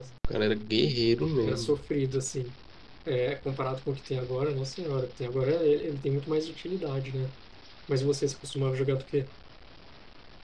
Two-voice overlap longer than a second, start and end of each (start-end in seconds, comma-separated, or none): none